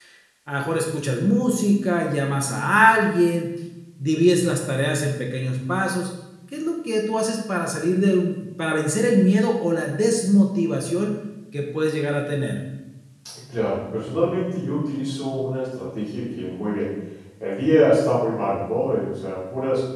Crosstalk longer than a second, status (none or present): none